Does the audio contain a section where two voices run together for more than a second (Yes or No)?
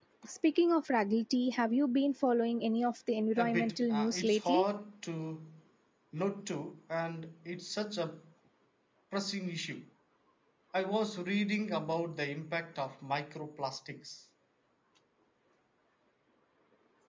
Yes